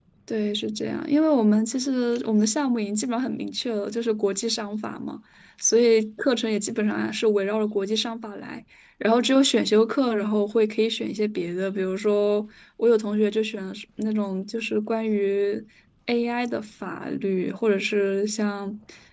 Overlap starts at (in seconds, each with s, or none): none